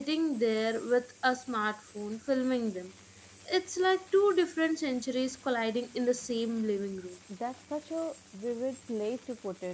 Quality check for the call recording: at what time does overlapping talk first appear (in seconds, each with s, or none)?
none